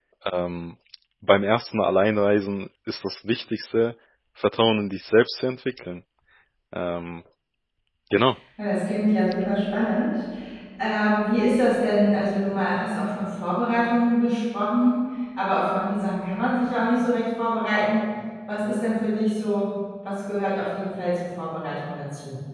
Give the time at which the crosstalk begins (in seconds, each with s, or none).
none